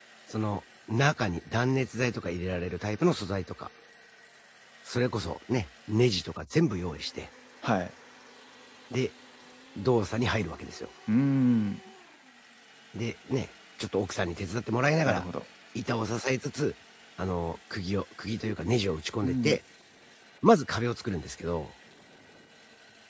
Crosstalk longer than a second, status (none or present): none